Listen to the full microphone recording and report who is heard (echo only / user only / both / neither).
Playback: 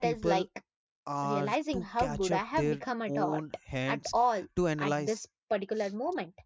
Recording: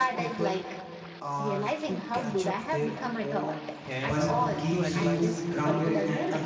both